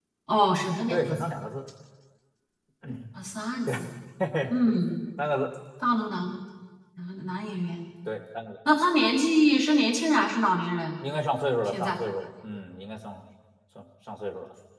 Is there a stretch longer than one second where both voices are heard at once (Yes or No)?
No